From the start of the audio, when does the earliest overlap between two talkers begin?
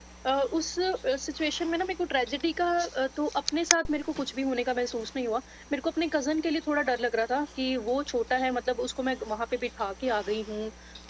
none

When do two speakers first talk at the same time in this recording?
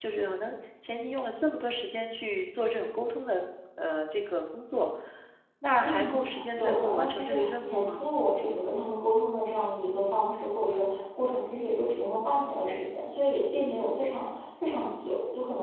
5.8 s

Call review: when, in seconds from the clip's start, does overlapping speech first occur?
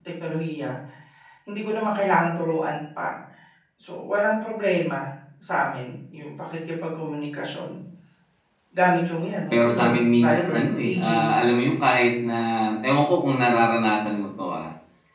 9.5 s

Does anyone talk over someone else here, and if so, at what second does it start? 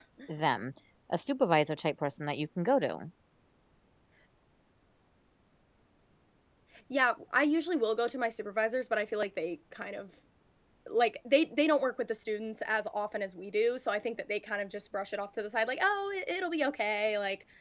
none

